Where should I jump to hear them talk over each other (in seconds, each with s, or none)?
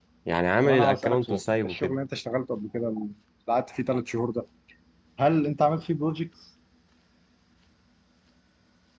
0.6 s